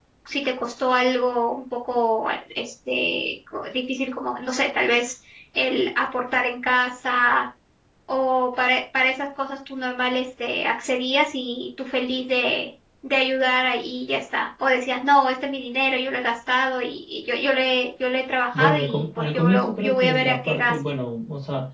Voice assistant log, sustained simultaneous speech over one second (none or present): present